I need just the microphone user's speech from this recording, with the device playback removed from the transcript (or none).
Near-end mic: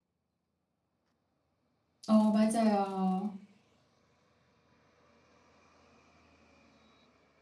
어 맞아요.